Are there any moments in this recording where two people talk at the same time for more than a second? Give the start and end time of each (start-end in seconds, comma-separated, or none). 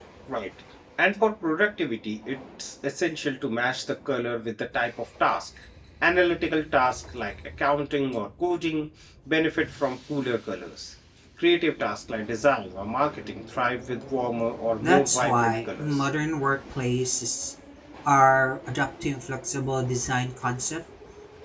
14.8-16.0